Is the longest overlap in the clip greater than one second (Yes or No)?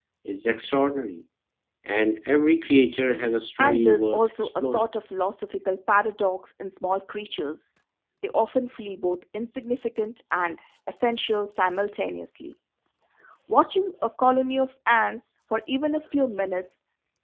Yes